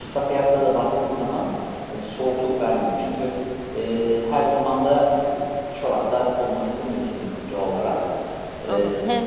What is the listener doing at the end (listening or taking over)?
taking over